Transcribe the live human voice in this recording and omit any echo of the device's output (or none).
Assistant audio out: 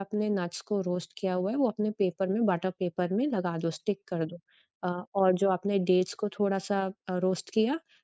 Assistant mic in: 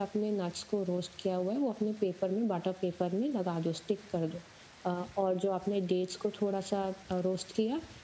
none